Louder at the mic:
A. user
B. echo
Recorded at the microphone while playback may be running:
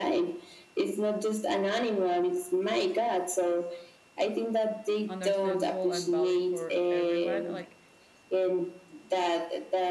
B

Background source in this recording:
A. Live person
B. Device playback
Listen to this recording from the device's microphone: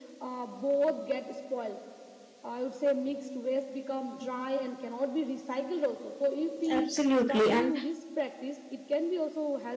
B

